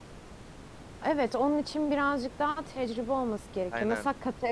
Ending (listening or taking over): listening